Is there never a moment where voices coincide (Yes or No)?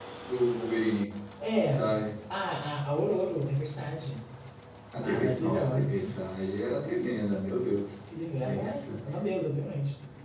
No